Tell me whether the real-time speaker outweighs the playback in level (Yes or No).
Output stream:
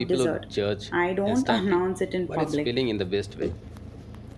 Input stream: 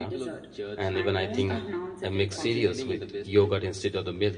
Yes